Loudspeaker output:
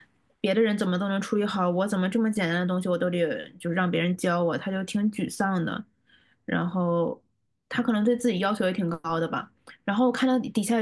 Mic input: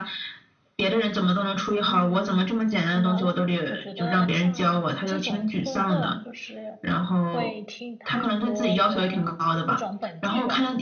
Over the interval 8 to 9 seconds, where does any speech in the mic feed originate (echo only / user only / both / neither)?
both